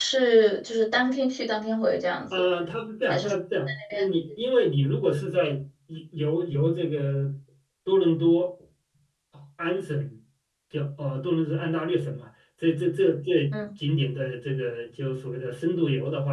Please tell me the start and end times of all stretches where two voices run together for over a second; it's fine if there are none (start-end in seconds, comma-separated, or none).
none